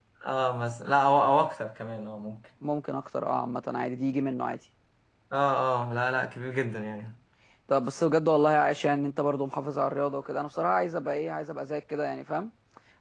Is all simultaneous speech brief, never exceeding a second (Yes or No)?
Yes